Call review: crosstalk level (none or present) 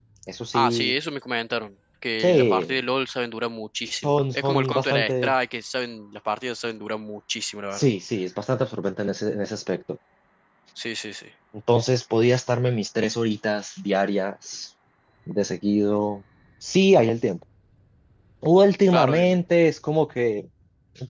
present